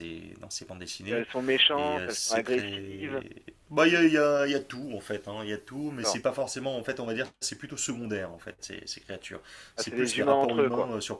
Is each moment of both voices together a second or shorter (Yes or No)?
No